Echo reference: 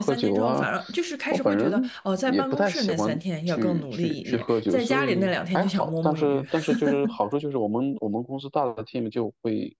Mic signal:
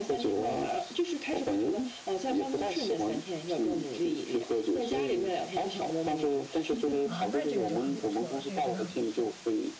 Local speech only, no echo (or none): 啊，那这个就很不错了，这个真的很不错。